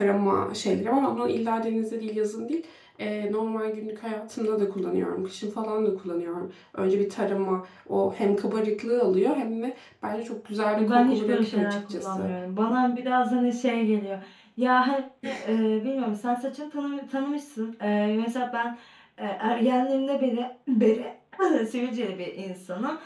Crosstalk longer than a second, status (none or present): present